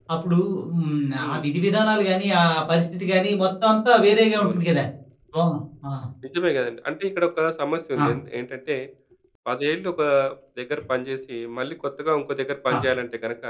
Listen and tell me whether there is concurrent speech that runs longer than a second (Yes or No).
No